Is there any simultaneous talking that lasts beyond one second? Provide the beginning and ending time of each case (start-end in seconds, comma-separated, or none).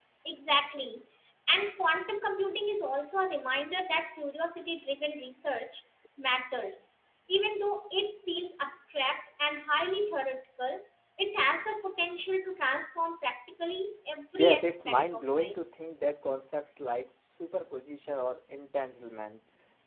14.3-15.6